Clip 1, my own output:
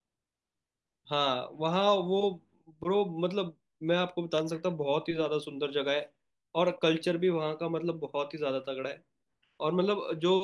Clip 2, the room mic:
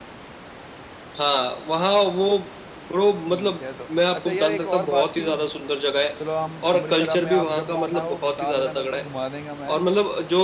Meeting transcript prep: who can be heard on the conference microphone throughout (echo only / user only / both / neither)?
both